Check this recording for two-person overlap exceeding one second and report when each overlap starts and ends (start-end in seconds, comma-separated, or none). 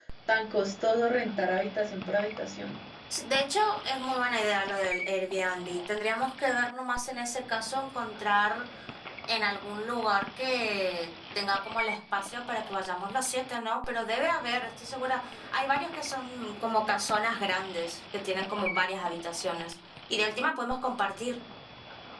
none